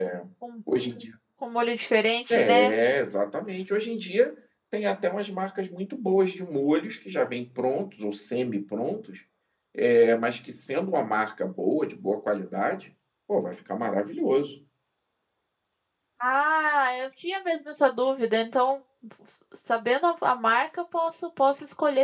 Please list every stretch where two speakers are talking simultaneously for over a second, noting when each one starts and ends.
none

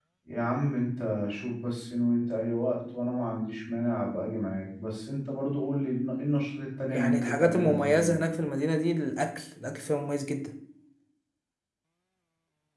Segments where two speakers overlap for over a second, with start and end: 6.9-8.2

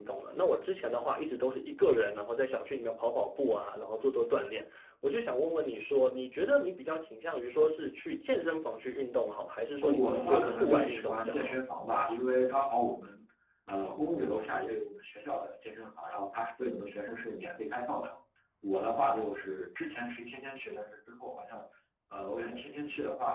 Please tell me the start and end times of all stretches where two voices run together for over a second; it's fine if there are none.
9.8-11.5

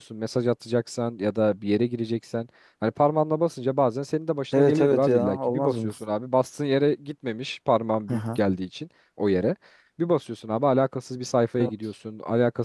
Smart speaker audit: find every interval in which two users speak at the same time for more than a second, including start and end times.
4.5-5.9

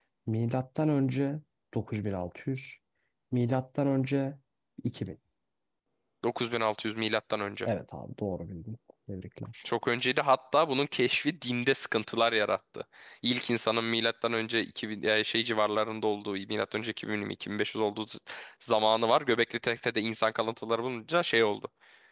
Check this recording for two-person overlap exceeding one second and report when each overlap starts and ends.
none

